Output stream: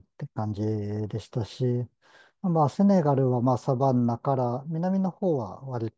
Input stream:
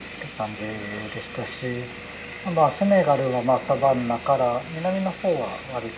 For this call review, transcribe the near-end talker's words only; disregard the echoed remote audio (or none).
none